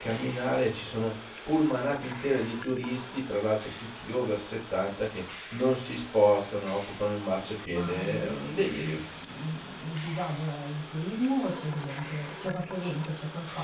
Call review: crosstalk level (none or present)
present